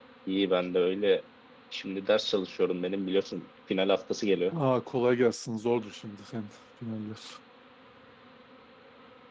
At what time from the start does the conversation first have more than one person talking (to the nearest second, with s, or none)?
none